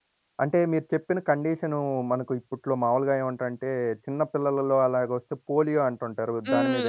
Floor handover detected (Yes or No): Yes